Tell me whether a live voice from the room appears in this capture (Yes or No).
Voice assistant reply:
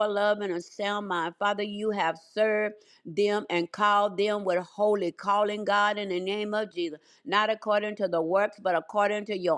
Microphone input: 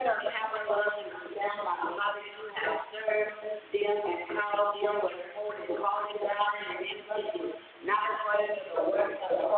No